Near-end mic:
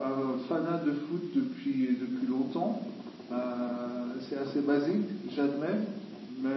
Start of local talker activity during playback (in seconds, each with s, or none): none